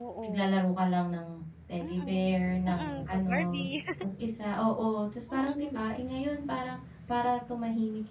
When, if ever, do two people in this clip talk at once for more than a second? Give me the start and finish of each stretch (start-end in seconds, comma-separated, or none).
1.8-3.6